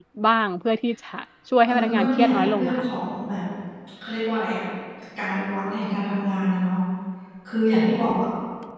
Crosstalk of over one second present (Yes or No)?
Yes